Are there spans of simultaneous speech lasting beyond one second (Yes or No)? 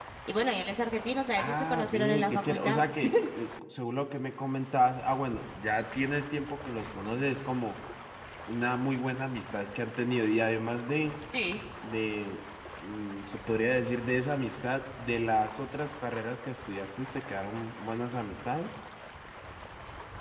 Yes